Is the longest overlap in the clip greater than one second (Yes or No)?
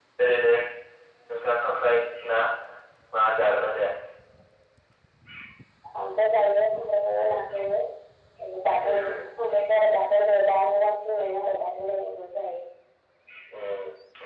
No